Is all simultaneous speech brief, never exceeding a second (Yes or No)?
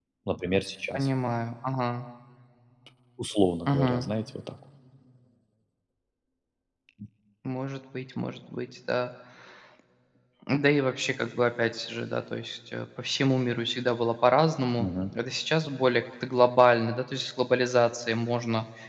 Yes